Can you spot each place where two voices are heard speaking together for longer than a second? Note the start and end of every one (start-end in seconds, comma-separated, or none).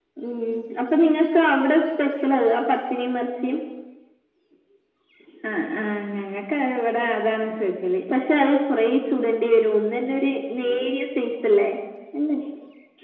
none